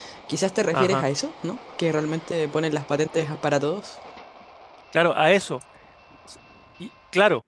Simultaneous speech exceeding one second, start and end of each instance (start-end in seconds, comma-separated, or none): none